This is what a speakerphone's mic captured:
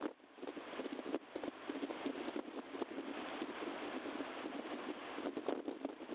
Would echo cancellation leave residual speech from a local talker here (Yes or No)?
No